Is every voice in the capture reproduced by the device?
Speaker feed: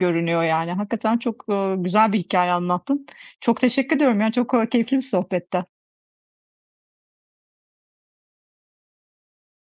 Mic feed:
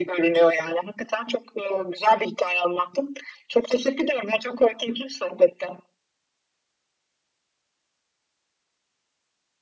Yes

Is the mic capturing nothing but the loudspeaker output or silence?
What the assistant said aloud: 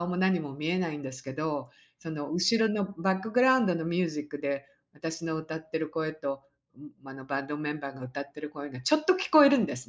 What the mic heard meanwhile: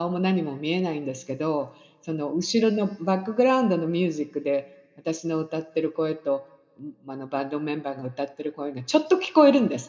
Yes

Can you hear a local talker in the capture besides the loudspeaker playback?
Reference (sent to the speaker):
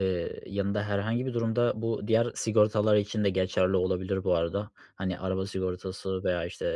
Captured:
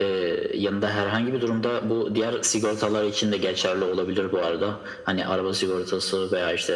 No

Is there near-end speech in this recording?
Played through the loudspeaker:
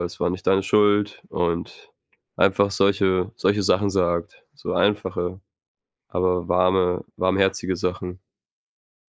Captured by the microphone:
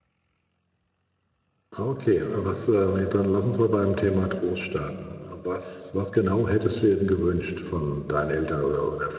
Yes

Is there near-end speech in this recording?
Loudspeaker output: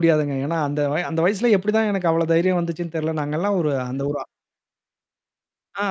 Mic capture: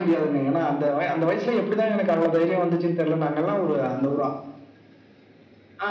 No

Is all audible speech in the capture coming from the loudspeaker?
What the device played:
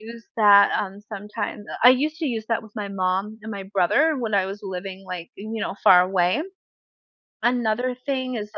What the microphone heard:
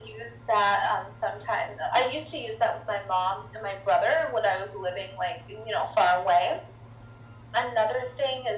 Yes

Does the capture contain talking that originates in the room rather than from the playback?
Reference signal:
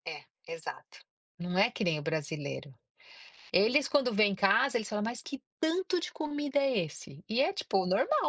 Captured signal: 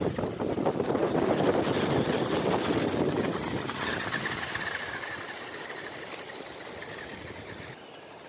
No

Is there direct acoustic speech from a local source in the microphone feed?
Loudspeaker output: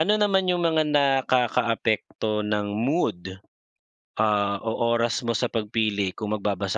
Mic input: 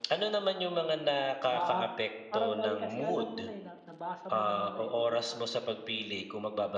Yes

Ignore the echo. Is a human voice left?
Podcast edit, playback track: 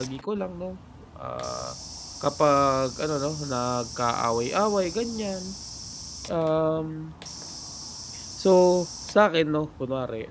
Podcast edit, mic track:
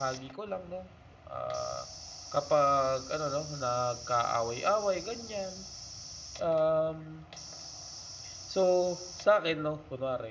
No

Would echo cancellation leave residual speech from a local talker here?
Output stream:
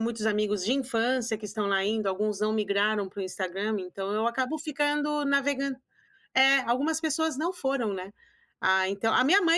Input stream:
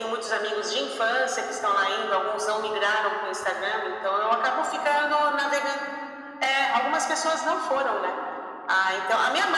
No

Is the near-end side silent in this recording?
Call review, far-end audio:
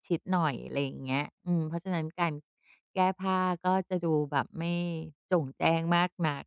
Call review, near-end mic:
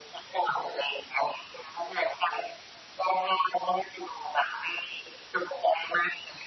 Yes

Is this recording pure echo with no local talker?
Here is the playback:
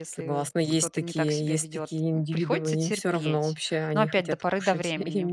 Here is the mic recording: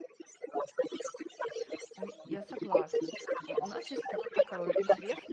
No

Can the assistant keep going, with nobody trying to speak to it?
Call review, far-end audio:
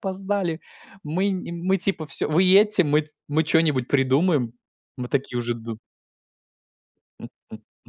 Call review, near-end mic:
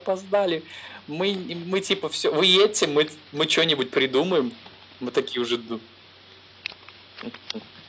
Yes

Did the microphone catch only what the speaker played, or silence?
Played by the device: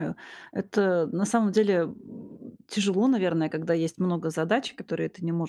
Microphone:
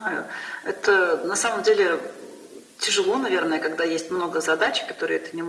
Yes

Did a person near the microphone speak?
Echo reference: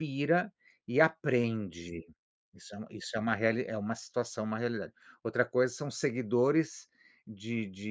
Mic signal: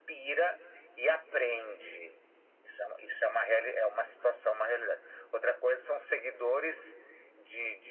No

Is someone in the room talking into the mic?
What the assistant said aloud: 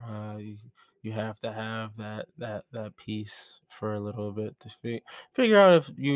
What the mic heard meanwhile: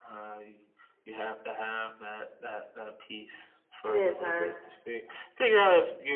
Yes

